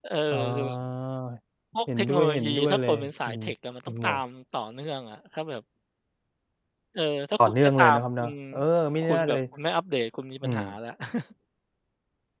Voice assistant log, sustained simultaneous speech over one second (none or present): present